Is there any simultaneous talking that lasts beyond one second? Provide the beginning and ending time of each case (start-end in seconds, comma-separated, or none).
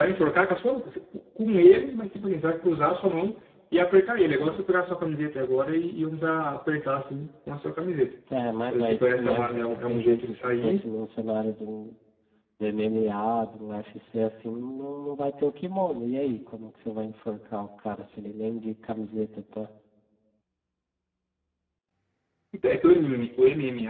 8.7-10.8